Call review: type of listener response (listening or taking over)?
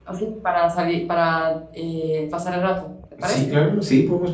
taking over